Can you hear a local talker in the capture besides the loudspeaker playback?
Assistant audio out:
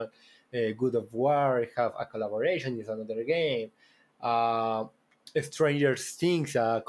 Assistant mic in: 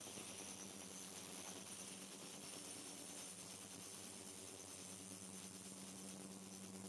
No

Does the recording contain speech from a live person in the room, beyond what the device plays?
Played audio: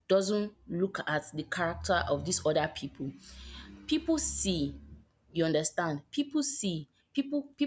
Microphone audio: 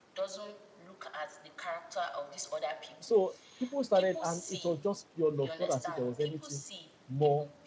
Yes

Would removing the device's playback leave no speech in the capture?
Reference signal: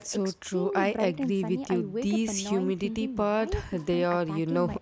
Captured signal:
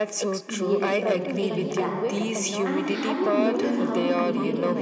No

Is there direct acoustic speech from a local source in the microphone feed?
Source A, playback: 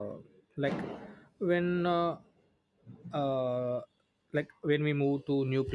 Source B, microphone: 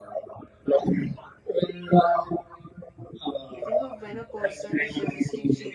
Yes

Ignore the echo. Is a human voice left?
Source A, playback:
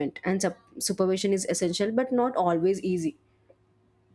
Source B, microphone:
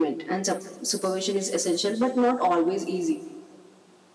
No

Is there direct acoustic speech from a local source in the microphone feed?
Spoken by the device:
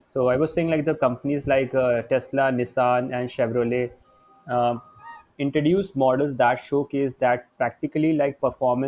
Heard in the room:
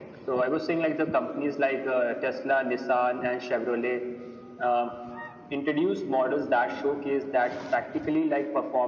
No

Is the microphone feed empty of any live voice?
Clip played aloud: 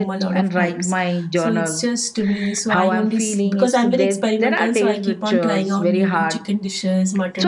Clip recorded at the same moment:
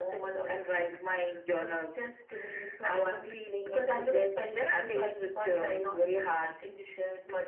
Yes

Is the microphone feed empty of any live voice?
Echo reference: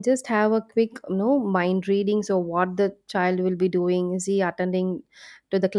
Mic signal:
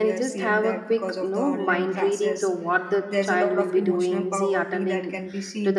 No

